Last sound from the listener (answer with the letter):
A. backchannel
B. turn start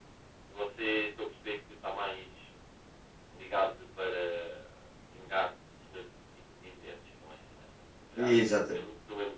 A